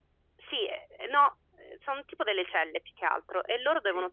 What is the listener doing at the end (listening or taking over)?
listening